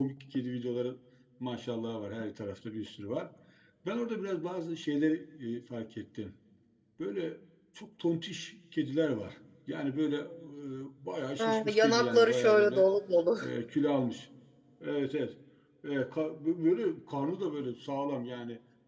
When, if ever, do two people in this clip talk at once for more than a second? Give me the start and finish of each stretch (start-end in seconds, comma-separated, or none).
11.4-12.9